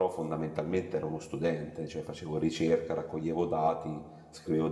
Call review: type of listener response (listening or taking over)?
listening